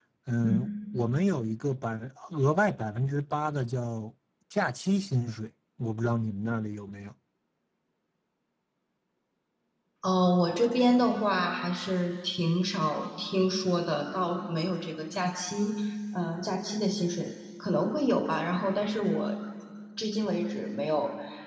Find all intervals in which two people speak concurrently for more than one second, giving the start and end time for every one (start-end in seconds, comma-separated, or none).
none